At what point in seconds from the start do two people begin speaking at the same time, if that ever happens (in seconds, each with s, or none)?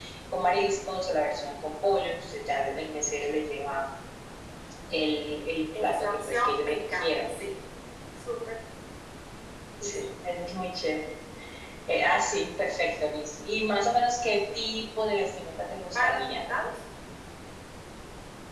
5.8 s